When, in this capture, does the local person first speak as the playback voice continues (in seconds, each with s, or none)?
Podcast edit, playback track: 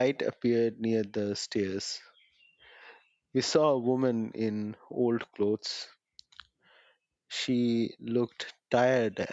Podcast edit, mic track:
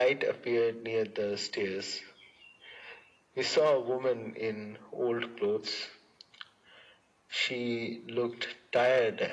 none